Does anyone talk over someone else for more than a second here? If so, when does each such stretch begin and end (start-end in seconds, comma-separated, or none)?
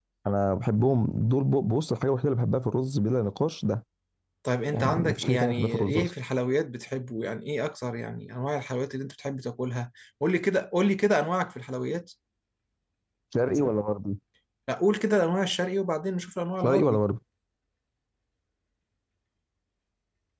4.7-6.1